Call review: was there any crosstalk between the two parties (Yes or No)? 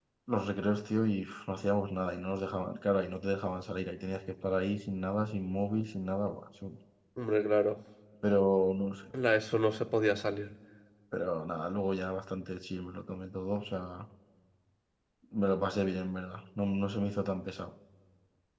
No